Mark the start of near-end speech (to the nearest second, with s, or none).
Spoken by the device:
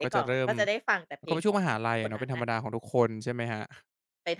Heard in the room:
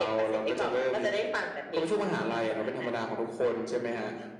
none